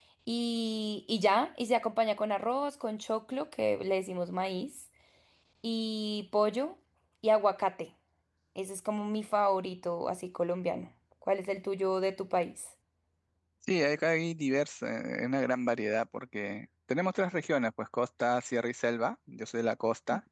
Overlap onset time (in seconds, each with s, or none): none